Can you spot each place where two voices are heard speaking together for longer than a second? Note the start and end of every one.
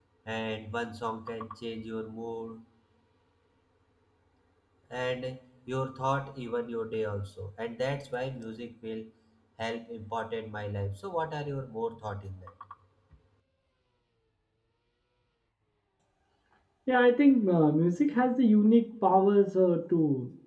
none

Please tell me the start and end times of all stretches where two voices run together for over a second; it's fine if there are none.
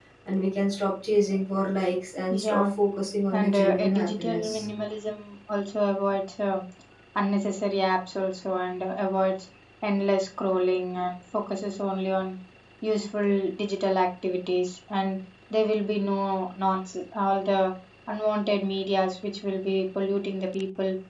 3.3-4.7

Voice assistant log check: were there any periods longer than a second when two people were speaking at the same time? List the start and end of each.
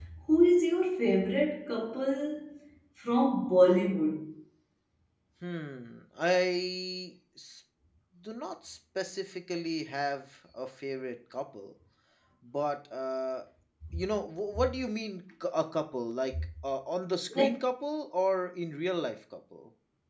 none

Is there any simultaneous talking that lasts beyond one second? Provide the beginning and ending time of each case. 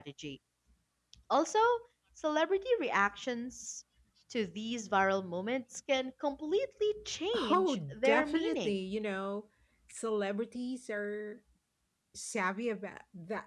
7.5-8.8

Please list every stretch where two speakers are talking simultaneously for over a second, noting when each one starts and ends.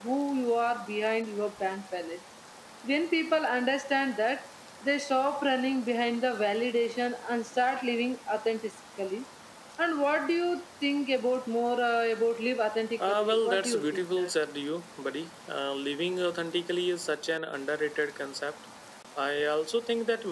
13.1-14.3

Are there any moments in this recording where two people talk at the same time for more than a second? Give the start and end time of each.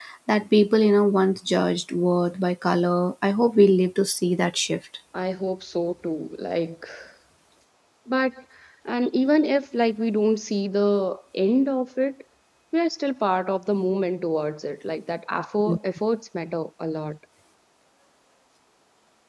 none

